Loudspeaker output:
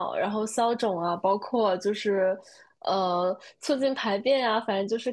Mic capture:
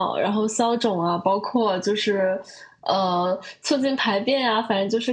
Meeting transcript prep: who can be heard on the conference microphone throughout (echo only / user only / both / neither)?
echo only